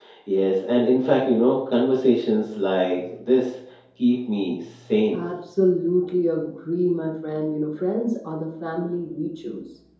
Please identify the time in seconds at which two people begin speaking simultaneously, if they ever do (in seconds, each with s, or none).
none